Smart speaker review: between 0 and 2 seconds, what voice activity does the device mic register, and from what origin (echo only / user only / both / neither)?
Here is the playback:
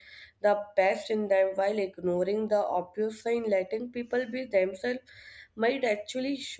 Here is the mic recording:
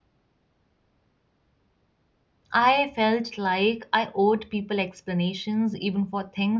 neither